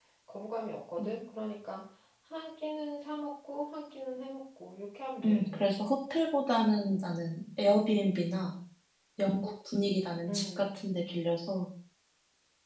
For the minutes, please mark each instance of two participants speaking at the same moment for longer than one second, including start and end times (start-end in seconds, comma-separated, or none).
none